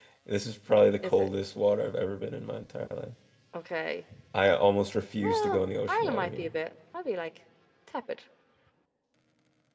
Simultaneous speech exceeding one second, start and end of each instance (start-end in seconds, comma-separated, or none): 5.2-6.5